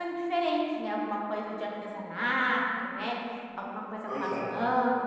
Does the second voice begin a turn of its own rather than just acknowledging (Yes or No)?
No